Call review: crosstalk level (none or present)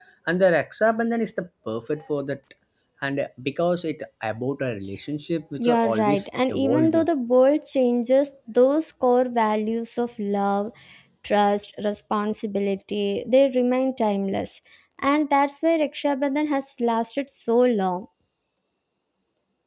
present